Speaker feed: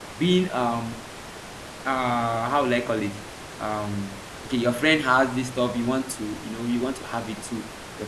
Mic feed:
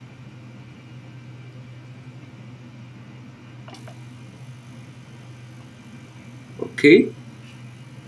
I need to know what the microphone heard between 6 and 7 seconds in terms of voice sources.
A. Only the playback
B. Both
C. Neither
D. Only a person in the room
D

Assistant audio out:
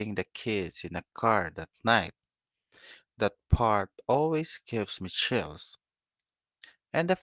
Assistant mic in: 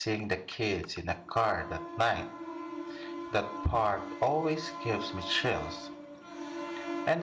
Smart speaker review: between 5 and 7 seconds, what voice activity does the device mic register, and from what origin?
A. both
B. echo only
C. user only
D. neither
B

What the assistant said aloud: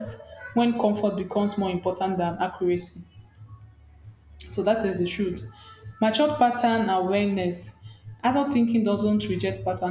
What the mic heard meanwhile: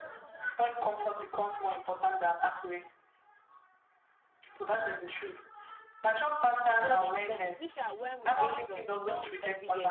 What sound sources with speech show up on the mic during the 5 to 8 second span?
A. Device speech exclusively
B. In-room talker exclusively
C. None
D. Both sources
D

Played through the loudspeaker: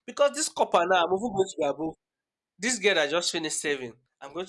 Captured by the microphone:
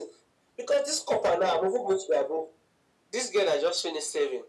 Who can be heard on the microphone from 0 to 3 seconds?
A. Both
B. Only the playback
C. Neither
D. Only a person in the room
B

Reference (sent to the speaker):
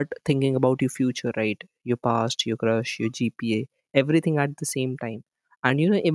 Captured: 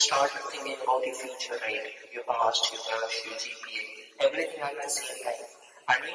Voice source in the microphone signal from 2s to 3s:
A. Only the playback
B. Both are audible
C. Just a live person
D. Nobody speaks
A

